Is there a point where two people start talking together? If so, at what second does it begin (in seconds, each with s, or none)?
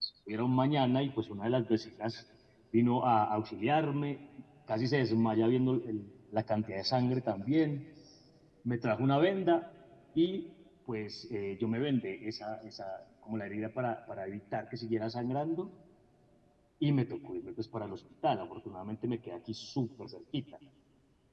none